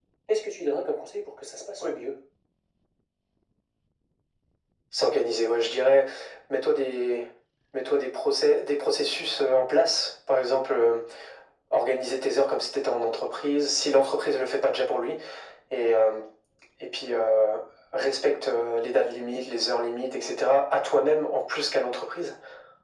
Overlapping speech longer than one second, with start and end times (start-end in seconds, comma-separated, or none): none